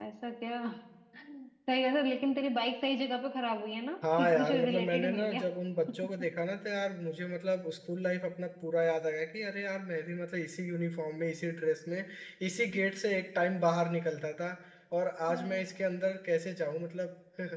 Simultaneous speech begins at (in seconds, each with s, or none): 4.2 s